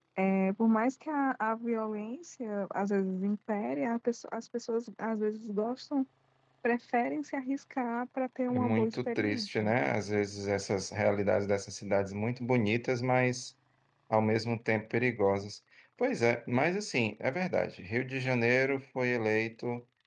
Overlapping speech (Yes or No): Yes